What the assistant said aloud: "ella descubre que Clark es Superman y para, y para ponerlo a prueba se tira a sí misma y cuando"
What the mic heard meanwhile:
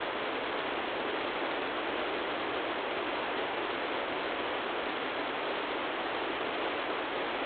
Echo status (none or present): none